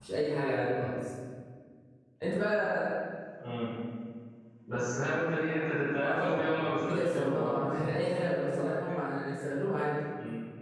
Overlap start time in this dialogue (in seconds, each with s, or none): 6.0 s